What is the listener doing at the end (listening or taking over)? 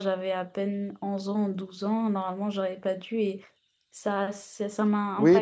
taking over